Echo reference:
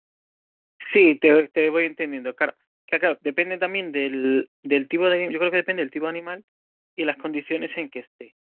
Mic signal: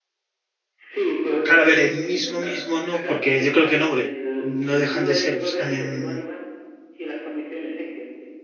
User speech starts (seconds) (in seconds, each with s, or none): 1.4 s